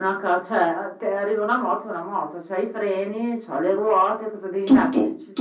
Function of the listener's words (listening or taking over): taking over